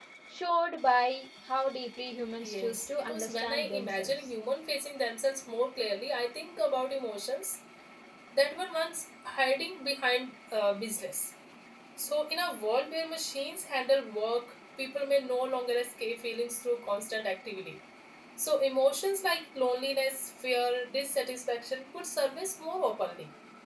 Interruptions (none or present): present